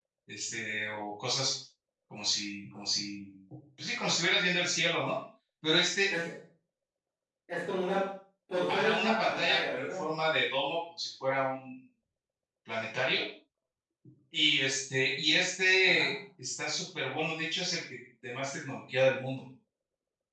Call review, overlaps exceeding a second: present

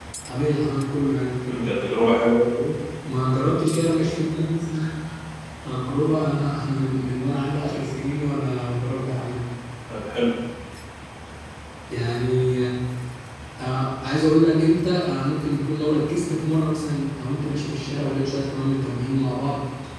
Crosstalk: none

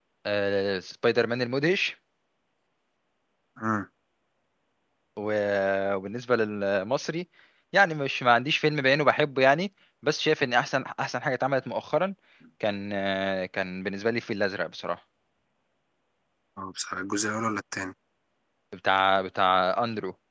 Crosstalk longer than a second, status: none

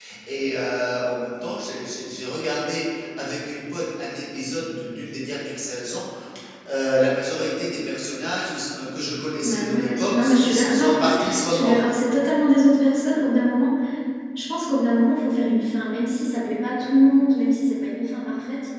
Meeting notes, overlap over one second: present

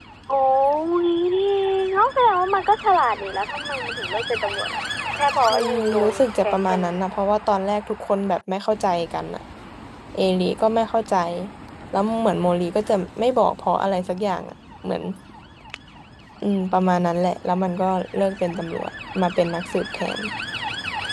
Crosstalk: present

